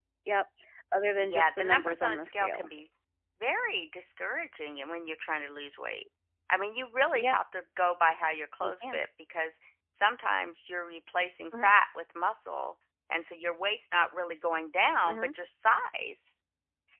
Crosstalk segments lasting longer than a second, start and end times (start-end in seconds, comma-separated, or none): 1.2-2.6